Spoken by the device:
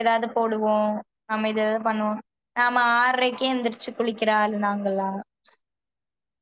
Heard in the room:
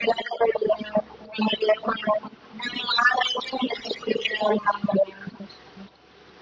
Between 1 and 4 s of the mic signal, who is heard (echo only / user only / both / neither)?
echo only